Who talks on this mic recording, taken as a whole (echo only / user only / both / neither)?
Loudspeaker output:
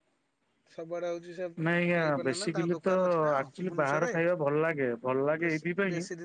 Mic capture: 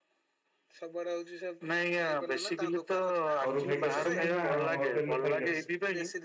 both